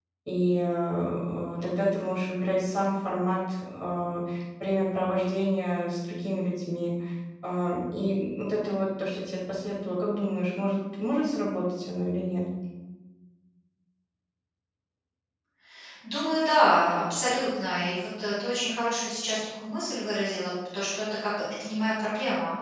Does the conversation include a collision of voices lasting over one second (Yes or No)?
No